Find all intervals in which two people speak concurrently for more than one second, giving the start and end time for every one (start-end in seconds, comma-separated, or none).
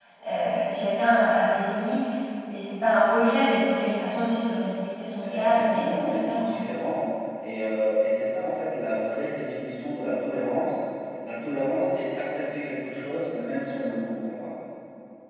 5.2-6.5